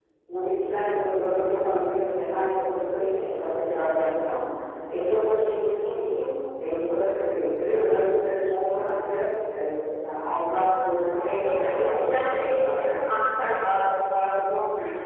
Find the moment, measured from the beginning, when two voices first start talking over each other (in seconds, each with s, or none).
11.2 s